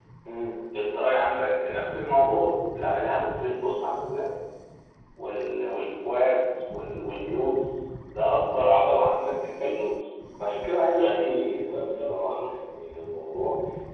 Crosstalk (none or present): present